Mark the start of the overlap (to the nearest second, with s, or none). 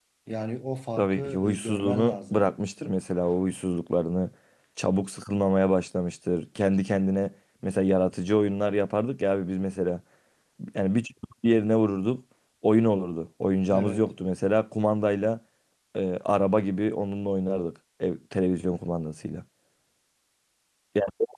1 s